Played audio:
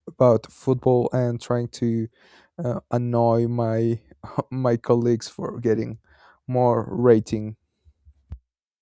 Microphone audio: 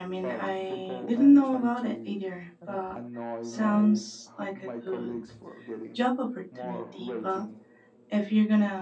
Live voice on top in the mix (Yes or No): Yes